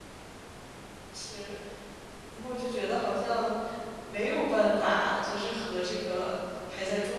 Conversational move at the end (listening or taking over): listening